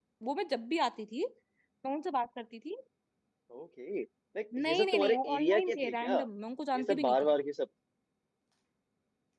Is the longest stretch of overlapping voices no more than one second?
No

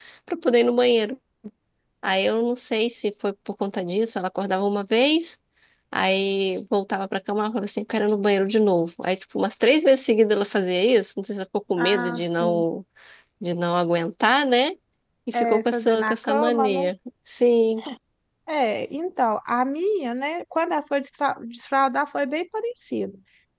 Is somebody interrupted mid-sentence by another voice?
Yes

